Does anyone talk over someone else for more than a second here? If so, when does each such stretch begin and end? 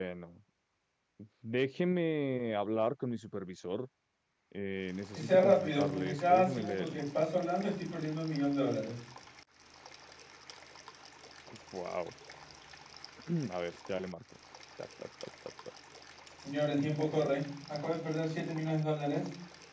5.2-7.0

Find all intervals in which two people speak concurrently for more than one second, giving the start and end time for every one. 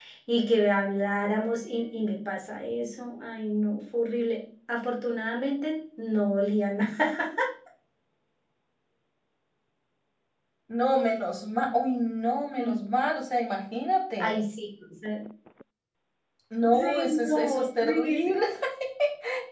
16.7-18.3

